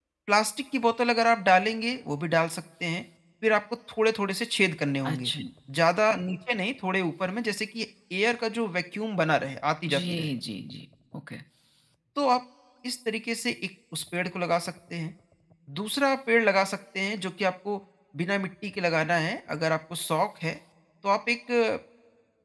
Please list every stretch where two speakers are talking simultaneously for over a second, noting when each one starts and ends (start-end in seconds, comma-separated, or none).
none